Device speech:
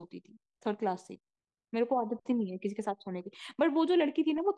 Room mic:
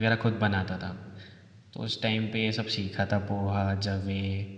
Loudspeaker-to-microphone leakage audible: No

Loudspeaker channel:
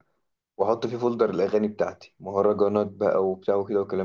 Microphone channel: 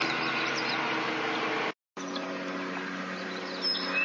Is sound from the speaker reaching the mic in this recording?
No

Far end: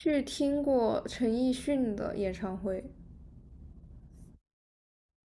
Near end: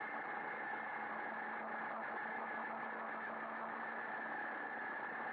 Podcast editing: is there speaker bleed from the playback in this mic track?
No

